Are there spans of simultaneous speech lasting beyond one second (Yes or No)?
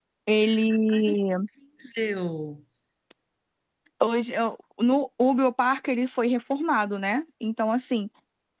No